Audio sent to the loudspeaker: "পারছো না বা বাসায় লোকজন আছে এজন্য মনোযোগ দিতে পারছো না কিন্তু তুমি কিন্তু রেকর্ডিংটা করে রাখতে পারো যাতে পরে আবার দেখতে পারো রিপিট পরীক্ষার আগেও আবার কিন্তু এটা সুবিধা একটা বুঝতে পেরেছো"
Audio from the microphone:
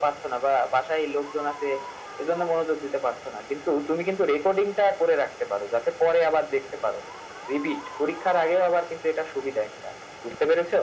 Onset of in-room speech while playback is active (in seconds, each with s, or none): none